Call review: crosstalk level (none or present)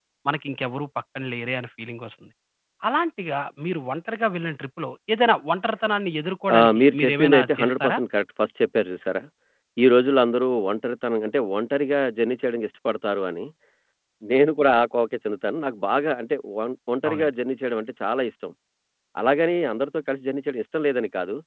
present